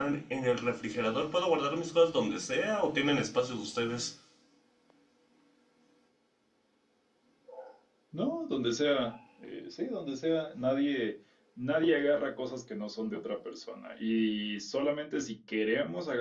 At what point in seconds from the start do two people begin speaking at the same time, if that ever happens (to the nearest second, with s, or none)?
none